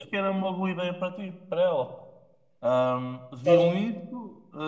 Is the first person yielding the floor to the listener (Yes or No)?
No